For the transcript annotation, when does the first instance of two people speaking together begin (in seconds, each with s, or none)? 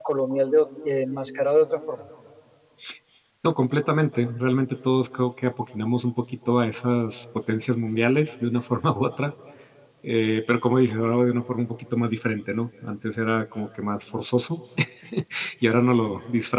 none